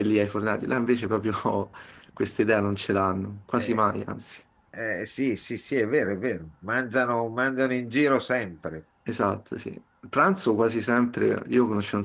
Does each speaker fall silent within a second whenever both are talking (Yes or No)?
Yes